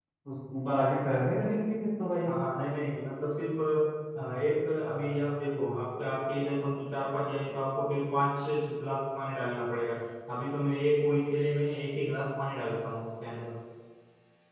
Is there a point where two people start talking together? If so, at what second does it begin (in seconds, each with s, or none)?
none